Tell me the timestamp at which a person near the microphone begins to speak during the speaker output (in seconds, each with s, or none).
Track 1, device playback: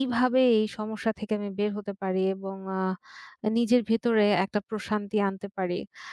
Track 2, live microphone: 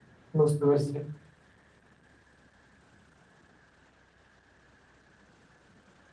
0.4 s